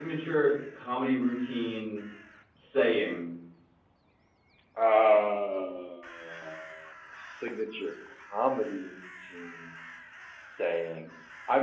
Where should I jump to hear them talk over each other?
none

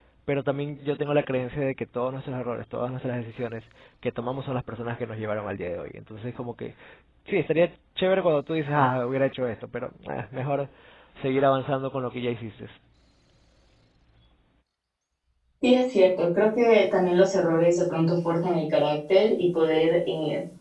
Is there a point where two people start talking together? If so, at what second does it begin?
none

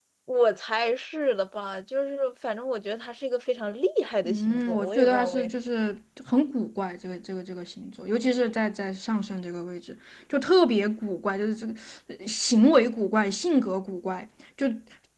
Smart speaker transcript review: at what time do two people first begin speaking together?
4.2 s

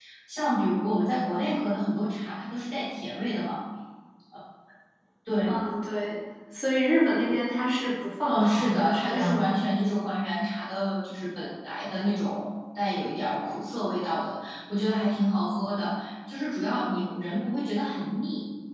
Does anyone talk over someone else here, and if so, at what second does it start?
8.3 s

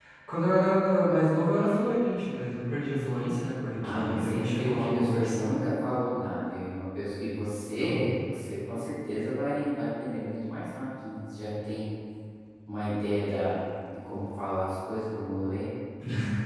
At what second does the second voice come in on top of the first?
3.8 s

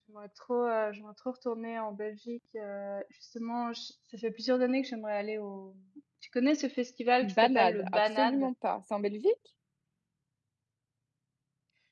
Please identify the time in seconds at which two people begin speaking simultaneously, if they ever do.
7.2 s

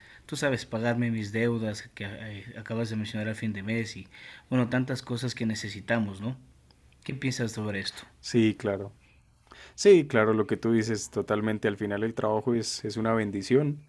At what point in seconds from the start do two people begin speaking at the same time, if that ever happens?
none

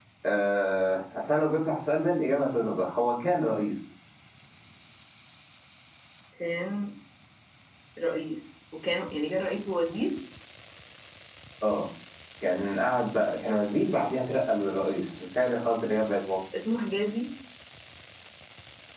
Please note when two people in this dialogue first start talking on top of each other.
none

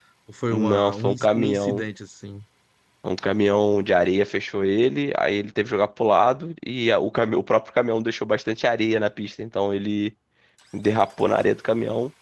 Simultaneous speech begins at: 0.5 s

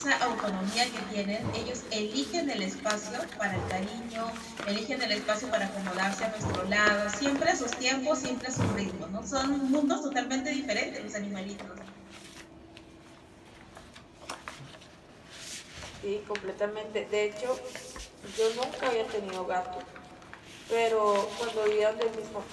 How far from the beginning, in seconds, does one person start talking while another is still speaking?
none

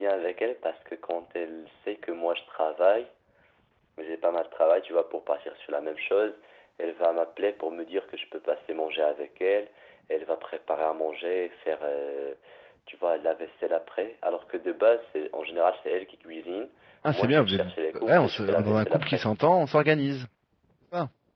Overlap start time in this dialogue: 17.1 s

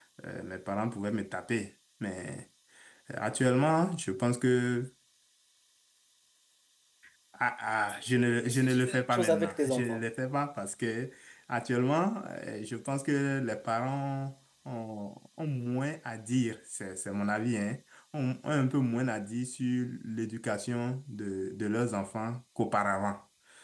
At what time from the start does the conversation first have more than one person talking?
8.4 s

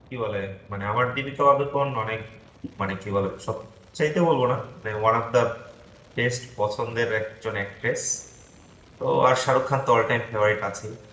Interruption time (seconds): none

